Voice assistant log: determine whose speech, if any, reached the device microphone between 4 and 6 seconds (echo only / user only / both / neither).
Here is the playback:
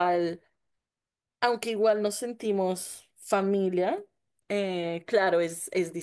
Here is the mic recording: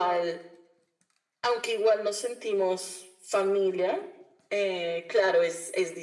echo only